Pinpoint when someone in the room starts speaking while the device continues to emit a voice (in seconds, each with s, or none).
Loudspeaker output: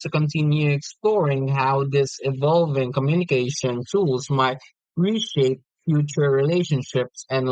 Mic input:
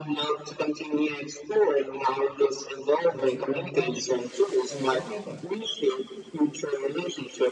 3.1 s